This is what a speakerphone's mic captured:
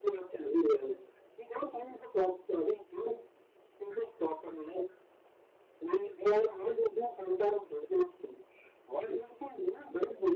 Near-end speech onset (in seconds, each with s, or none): none